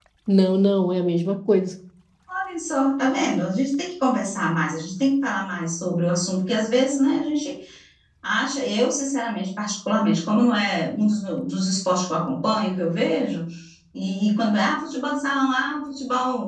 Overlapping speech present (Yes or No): No